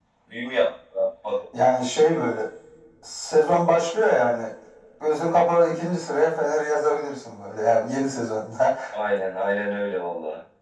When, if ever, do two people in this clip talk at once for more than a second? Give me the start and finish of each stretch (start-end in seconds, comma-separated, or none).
none